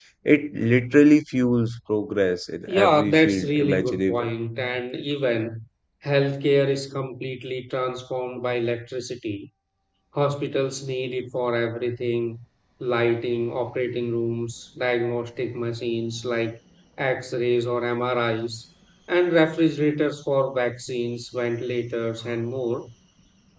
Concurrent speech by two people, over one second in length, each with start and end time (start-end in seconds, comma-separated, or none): 2.7-4.3